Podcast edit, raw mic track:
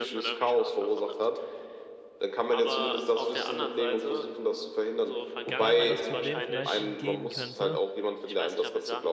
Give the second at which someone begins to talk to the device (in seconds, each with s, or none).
5.4 s